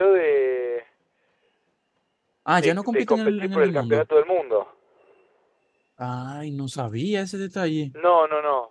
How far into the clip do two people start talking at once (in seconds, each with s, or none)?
2.5 s